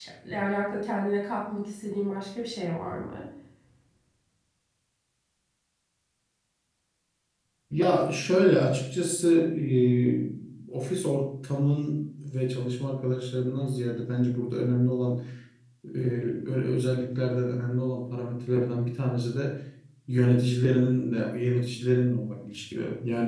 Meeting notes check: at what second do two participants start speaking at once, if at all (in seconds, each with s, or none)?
none